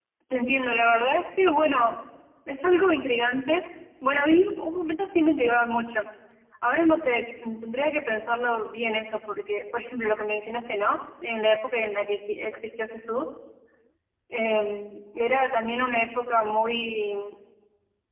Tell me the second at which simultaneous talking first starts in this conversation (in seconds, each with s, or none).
none